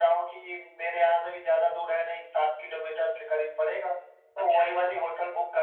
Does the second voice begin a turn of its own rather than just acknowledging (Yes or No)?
No